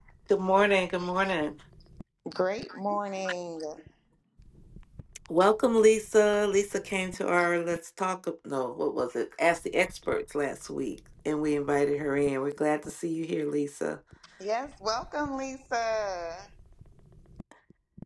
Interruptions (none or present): none